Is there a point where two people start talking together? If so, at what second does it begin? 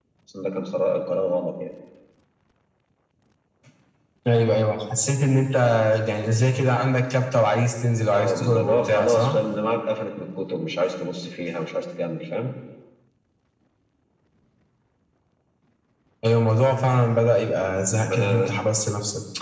8.1 s

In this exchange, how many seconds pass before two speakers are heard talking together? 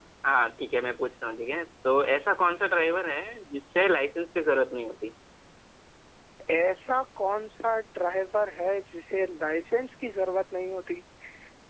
none

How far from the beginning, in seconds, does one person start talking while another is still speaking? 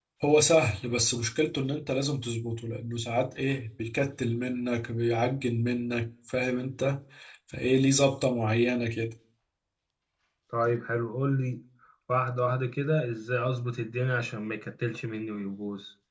none

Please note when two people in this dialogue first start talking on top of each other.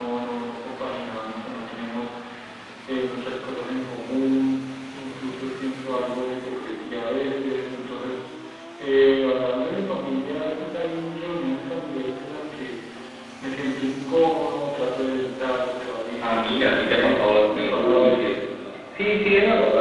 16.2 s

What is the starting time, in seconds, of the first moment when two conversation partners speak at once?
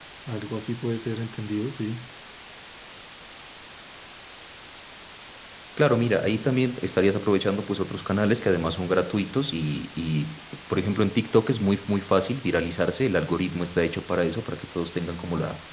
none

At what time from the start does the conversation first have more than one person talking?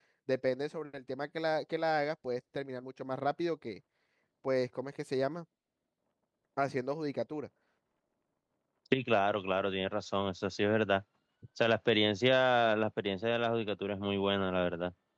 none

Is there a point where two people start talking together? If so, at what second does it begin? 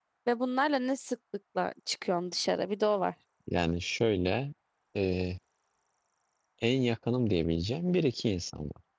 none

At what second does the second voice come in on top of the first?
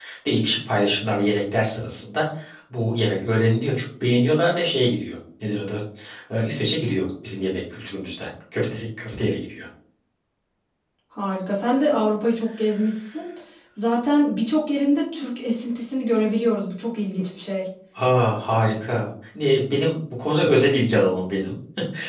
none

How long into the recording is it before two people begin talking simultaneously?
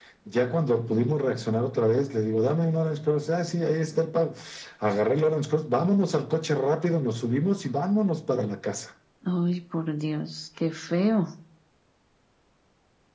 none

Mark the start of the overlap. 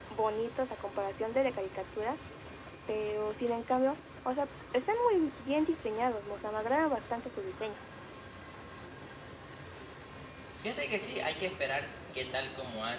none

